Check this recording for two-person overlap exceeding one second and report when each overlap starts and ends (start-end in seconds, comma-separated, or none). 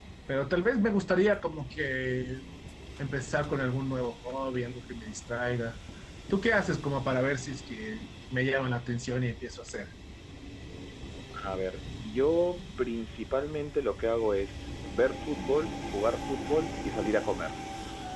none